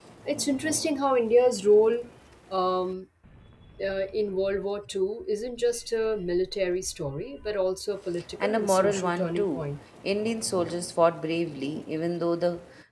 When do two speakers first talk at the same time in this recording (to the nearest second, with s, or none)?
8 s